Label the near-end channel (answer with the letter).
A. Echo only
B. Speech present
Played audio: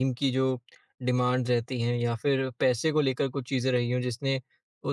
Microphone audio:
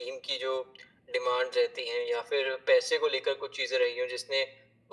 A